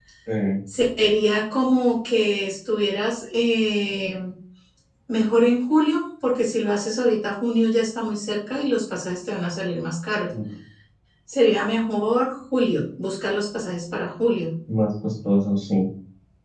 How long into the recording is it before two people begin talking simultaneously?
none

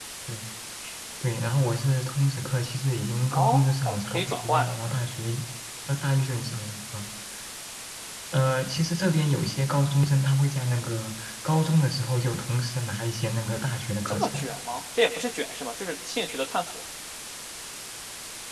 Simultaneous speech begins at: 3.3 s

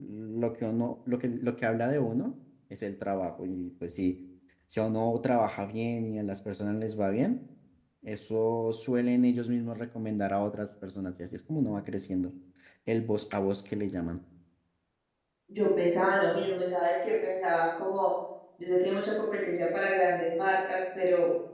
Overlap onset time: none

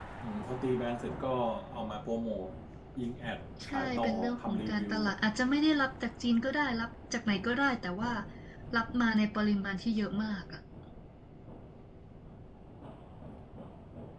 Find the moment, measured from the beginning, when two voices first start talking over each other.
3.6 s

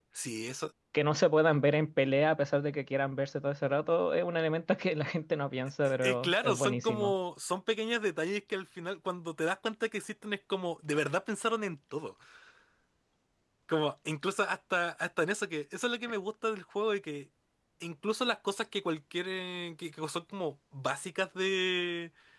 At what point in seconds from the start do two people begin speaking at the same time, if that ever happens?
5.8 s

